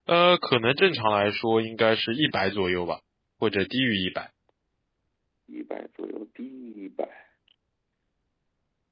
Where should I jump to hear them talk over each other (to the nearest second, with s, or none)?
none